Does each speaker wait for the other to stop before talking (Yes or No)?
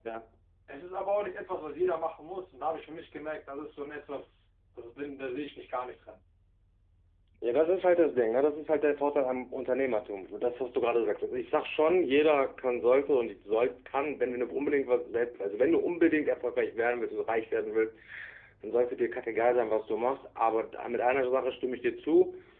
Yes